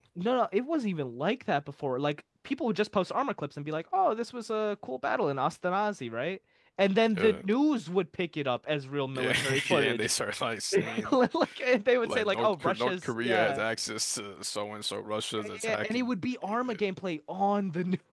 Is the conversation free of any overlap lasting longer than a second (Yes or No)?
No